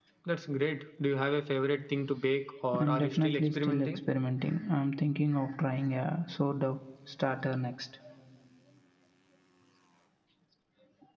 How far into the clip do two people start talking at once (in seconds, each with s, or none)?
2.7 s